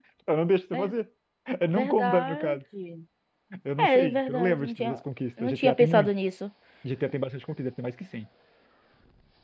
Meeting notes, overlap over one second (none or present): present